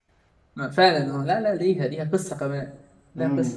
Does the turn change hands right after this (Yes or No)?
Yes